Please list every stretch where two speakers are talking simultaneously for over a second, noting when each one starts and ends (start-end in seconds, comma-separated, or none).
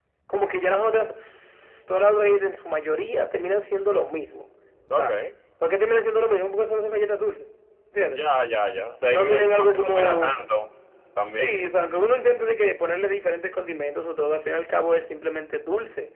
9.1-10.4